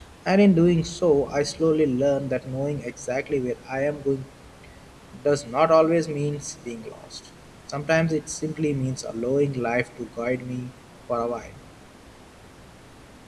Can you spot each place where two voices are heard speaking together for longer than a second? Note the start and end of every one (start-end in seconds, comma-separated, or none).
none